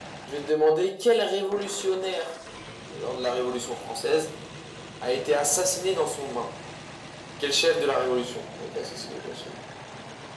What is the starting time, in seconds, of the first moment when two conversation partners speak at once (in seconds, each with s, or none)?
none